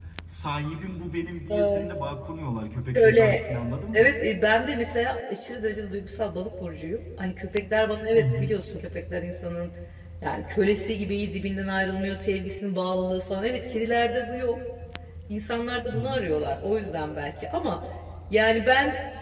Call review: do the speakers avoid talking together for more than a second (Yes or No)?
Yes